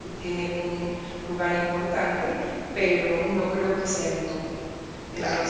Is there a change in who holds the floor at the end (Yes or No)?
No